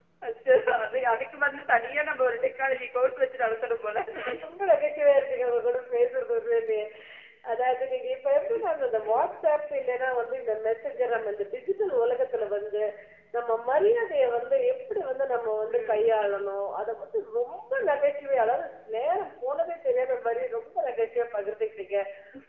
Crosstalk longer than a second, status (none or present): none